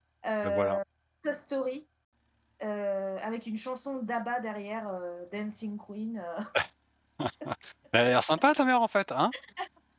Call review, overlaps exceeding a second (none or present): none